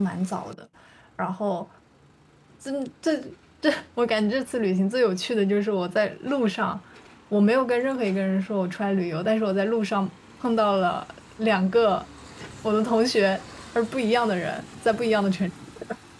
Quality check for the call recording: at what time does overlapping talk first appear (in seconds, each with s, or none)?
none